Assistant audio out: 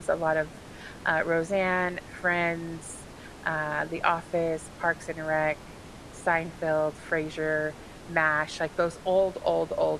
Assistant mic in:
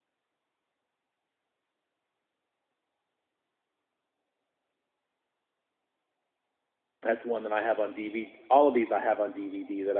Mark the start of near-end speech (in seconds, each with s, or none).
7.0 s